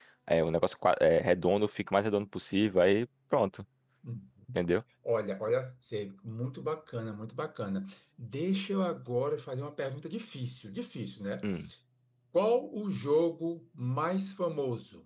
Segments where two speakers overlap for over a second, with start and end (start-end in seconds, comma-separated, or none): none